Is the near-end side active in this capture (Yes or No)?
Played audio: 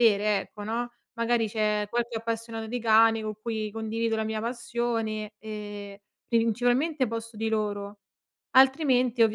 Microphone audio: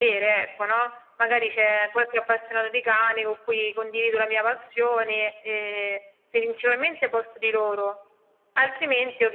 No